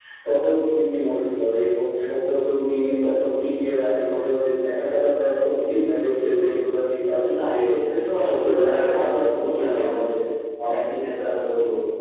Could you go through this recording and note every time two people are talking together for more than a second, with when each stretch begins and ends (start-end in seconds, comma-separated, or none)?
8.2-10.0